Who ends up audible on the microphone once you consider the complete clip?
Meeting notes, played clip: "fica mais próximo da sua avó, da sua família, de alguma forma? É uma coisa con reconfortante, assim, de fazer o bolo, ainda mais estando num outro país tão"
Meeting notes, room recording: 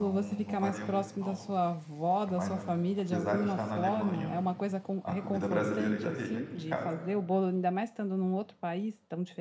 both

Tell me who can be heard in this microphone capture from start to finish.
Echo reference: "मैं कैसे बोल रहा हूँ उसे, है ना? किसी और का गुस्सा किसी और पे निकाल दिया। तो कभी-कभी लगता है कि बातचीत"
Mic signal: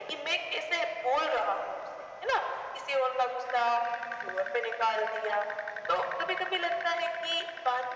echo only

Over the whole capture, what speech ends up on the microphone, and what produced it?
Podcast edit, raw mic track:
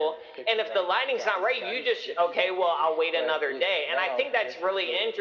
echo only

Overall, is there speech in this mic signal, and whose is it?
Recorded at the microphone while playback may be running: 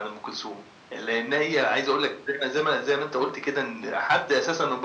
echo only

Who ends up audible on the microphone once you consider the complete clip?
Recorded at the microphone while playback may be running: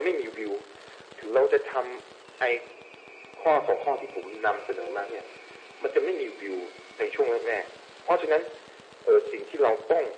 echo only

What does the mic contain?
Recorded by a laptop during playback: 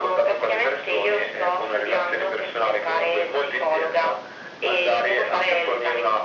echo only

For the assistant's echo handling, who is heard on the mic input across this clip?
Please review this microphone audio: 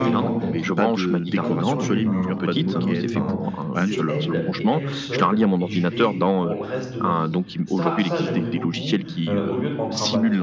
both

